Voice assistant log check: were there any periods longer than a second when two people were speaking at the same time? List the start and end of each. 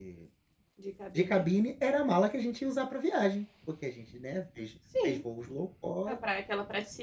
none

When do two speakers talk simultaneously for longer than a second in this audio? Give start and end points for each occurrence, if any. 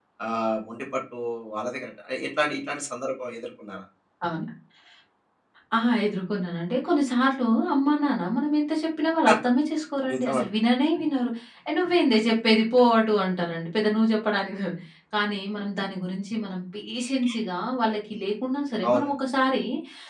none

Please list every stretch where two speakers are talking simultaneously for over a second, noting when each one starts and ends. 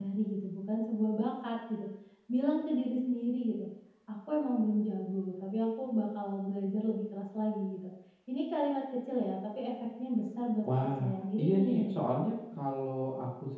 10.6-12.0

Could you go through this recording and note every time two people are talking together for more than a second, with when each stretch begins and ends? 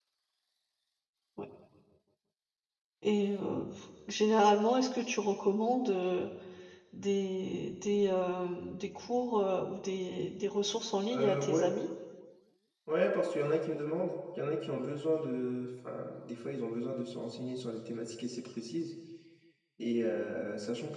none

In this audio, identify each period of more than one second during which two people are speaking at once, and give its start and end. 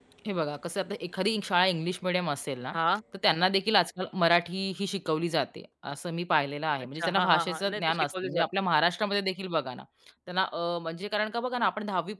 7.0-8.4

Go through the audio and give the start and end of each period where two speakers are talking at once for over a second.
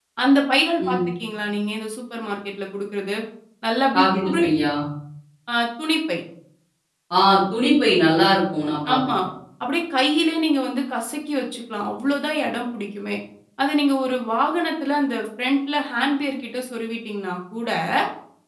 none

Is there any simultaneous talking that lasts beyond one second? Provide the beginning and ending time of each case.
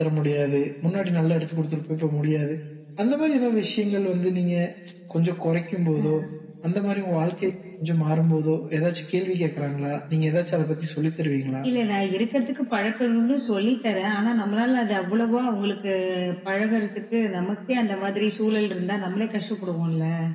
none

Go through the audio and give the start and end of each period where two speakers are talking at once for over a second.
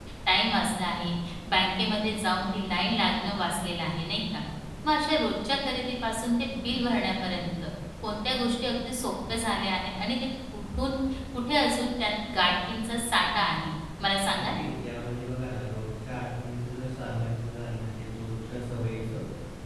none

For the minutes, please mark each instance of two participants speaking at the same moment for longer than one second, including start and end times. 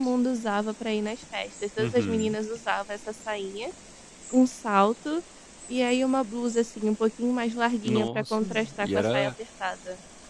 7.8-9.3

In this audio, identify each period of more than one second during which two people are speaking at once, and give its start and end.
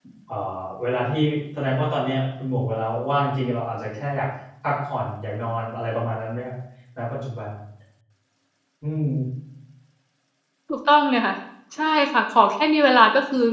none

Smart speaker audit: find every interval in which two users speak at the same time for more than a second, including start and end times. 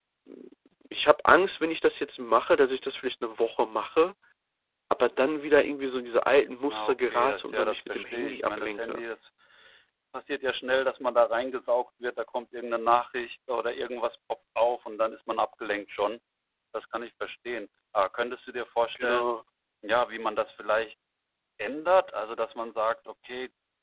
6.7-9.0

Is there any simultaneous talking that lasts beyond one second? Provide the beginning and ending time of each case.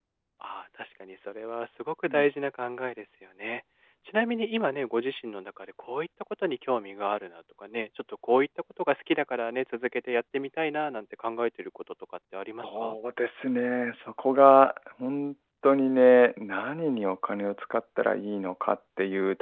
none

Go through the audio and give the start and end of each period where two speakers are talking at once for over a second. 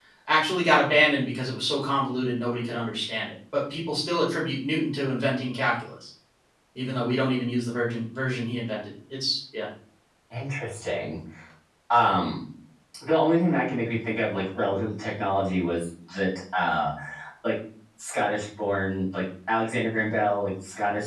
none

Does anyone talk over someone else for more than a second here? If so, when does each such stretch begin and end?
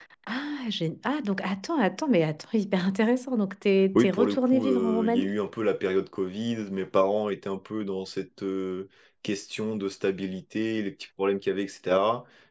4.0-5.3

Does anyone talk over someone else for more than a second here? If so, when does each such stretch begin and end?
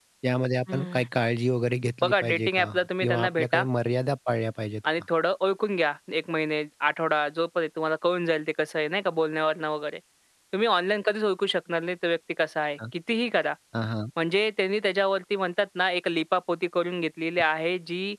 2.0-3.6

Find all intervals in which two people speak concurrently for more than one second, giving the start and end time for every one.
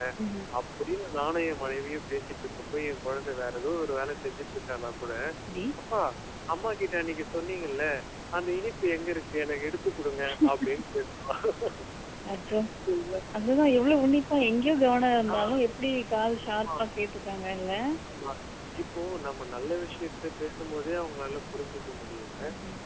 none

